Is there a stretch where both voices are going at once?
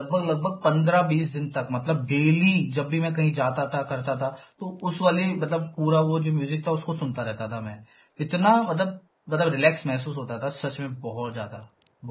No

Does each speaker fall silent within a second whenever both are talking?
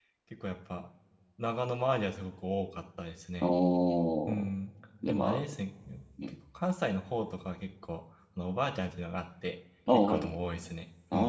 Yes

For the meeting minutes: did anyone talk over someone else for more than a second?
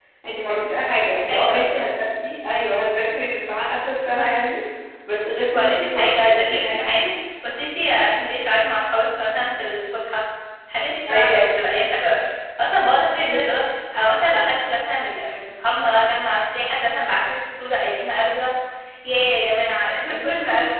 Yes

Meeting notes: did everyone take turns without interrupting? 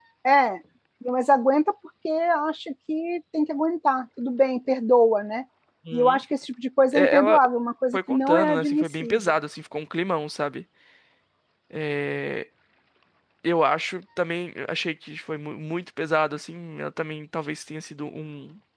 No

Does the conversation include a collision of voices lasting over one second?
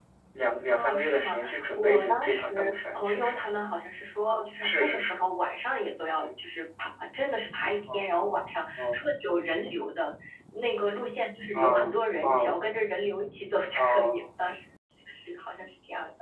Yes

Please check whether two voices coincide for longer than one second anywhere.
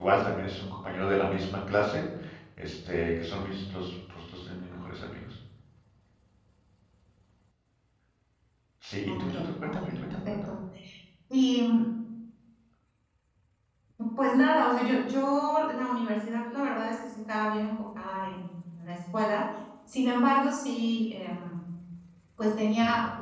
Yes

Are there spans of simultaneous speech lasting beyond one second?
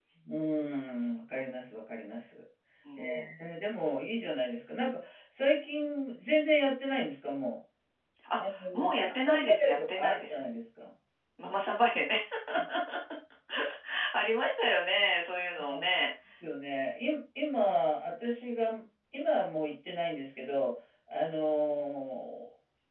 Yes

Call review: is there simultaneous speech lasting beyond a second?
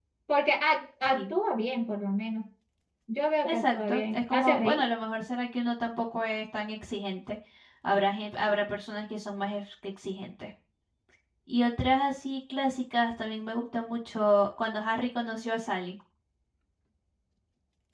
Yes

